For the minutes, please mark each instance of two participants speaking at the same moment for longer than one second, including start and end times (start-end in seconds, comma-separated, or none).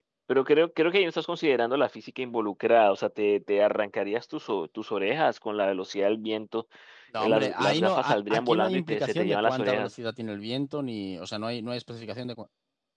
7.2-9.9